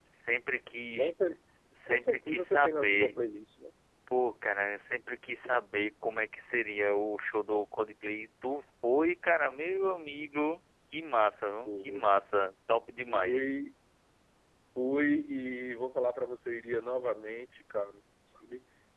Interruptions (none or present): present